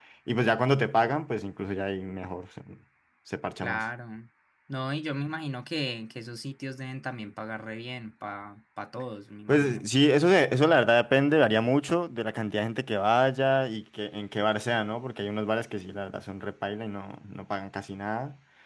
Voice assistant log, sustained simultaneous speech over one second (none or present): none